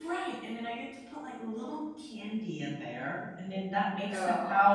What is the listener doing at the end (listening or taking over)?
listening